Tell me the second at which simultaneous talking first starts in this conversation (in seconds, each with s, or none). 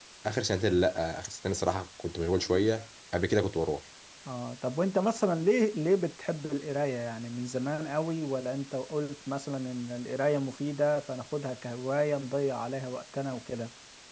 none